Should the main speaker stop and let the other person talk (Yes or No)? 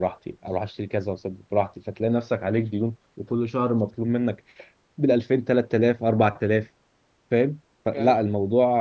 No